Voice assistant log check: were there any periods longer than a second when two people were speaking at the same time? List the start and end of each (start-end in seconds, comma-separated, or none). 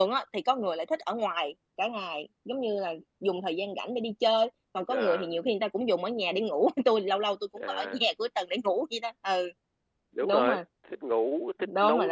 none